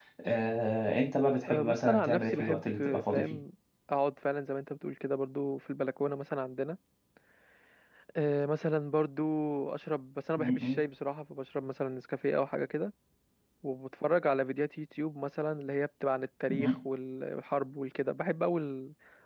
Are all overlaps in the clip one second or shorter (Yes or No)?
No